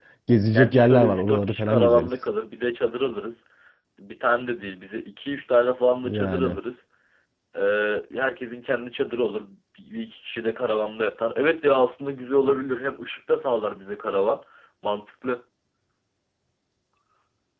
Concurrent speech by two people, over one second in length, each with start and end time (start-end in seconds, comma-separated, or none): 0.5-2.1